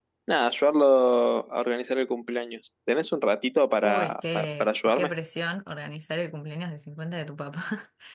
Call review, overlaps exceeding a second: present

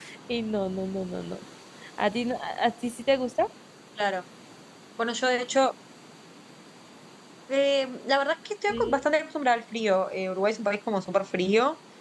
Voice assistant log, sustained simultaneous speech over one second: none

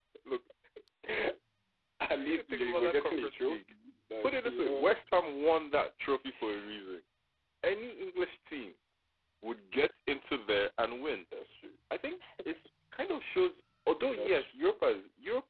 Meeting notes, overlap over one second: present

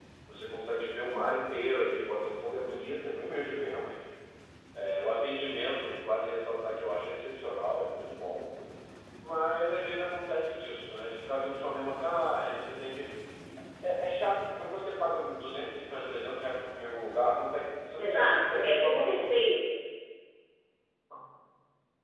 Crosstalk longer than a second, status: present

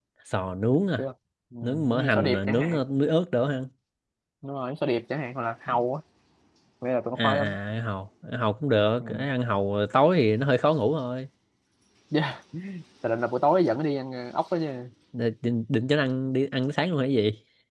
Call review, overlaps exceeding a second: present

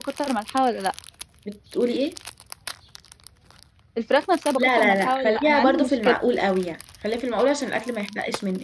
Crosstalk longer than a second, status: present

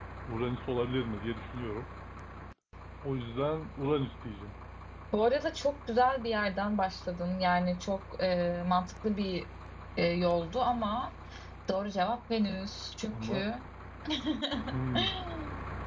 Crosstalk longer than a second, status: none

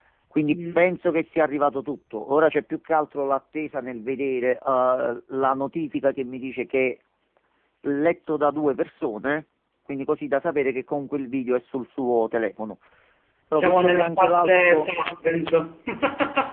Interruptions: present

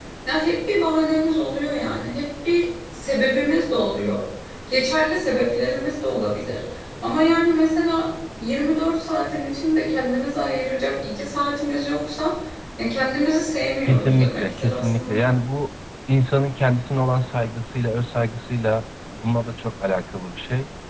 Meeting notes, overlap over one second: present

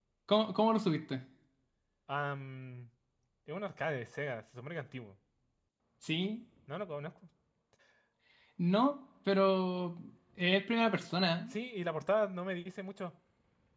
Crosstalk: none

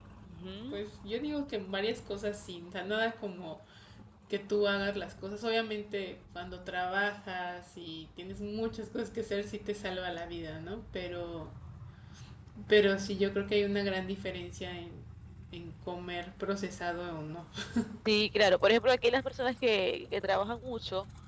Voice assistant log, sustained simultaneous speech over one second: none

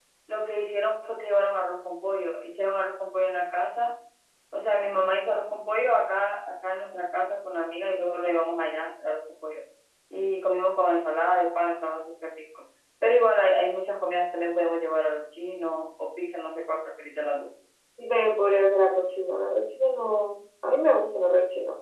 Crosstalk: none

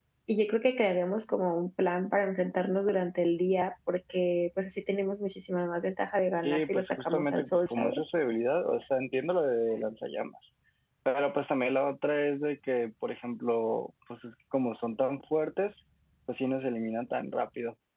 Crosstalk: present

